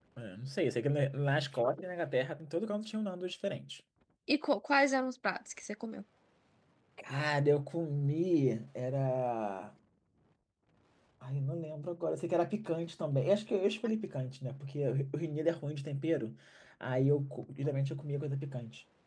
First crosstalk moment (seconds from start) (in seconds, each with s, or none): none